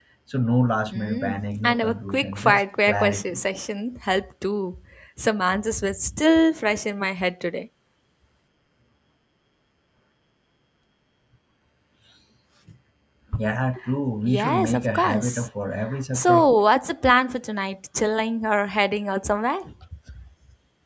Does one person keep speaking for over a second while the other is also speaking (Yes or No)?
Yes